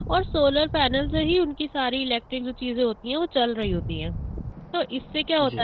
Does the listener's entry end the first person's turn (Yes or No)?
No